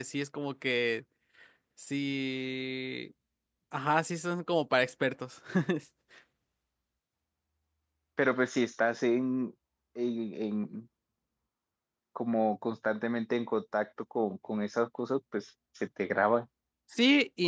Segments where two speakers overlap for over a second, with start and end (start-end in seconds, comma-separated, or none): none